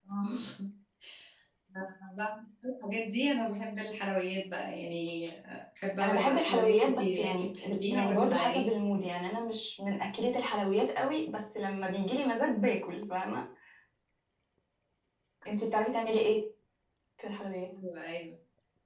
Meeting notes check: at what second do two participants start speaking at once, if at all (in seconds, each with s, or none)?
6.0 s